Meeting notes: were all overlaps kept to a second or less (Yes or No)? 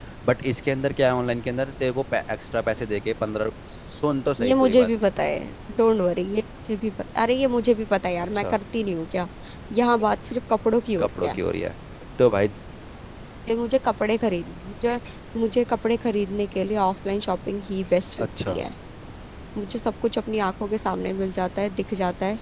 Yes